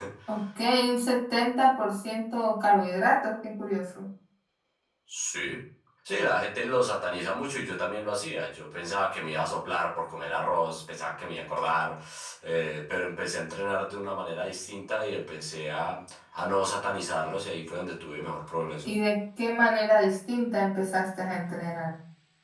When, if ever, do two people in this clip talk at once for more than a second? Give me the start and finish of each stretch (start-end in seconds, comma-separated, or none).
none